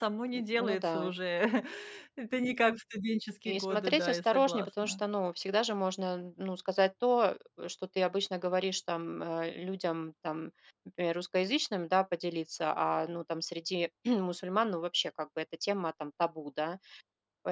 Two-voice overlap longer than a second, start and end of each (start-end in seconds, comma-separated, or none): 3.5-5.0